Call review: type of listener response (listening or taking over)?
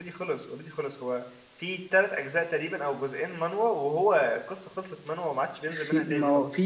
taking over